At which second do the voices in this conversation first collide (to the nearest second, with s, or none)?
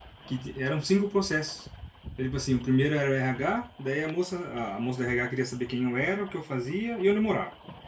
none